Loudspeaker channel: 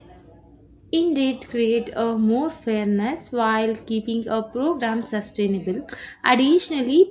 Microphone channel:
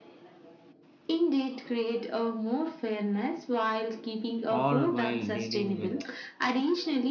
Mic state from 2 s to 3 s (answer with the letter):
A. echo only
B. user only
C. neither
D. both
A